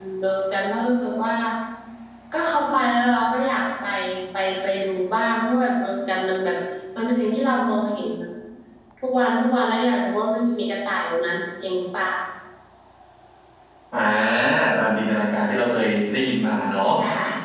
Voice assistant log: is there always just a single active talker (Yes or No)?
Yes